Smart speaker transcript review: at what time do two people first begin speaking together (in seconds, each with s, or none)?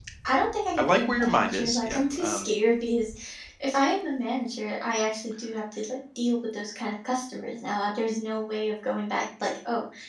0.8 s